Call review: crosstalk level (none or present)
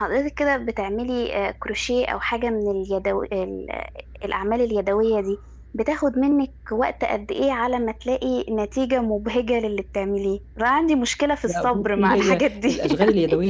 present